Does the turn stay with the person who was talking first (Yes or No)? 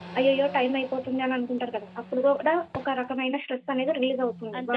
No